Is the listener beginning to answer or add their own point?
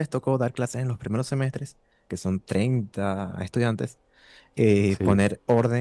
No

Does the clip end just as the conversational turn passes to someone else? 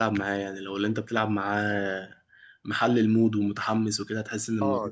Yes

